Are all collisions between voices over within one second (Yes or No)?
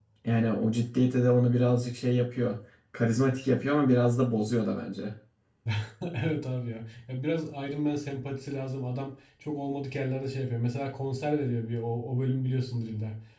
Yes